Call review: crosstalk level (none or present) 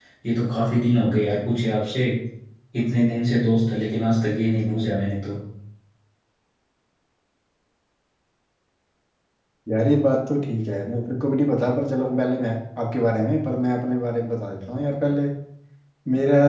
none